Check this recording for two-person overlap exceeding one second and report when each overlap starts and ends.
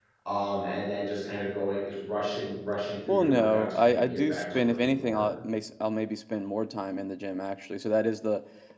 3.1-5.2

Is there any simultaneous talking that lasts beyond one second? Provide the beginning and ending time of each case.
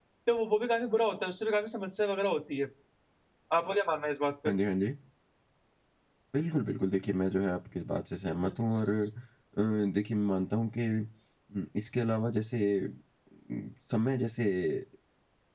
none

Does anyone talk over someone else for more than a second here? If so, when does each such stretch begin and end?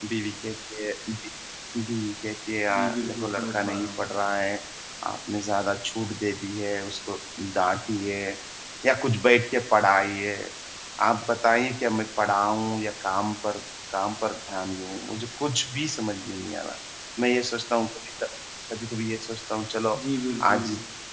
2.7-4.1

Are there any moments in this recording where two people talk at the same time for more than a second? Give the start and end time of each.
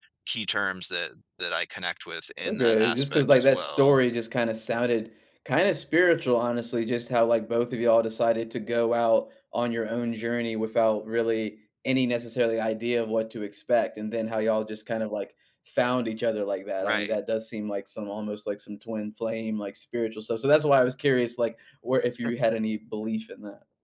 2.4-4.0

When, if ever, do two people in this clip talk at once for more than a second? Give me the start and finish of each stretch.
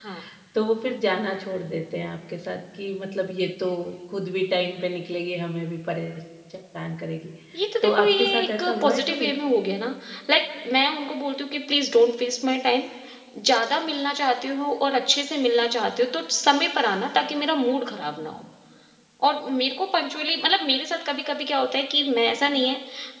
7.8-9.3

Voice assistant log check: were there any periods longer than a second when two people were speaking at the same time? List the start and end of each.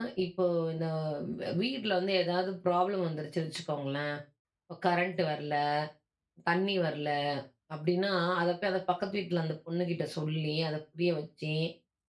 none

